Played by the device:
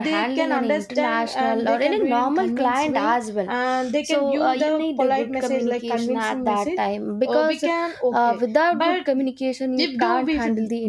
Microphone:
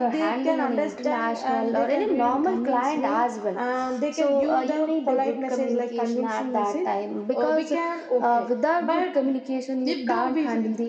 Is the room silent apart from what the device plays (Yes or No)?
Yes